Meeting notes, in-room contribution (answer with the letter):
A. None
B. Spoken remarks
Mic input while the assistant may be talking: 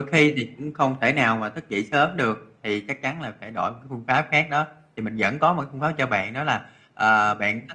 A